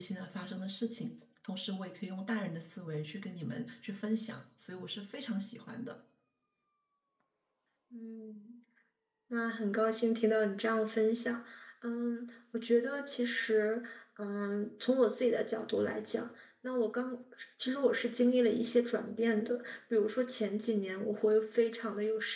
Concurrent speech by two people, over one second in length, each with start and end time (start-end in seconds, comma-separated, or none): none